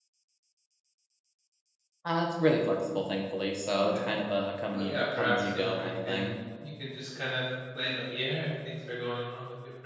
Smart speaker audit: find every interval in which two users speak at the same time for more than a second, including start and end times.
4.7-6.3

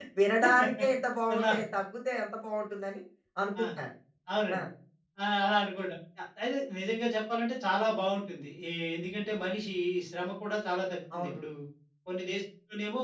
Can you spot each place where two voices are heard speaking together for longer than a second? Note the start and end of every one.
none

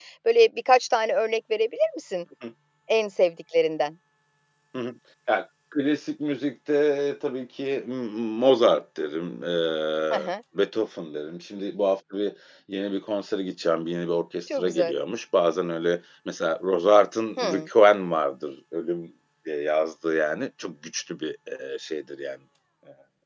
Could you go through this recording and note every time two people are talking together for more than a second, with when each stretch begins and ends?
none

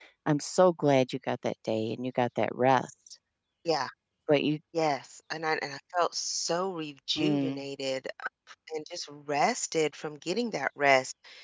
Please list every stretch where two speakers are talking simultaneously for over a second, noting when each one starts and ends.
none

